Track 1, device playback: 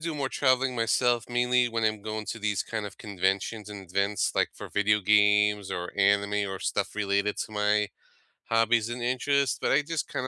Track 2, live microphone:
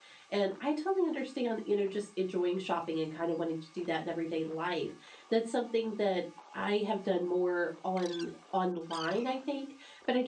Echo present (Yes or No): No